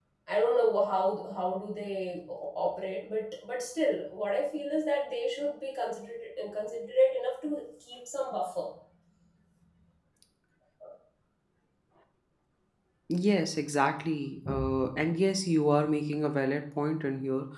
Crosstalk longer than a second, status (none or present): none